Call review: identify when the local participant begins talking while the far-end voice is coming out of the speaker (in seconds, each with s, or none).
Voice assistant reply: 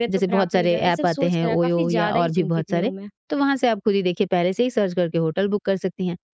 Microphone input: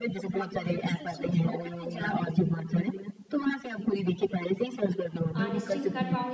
5.3 s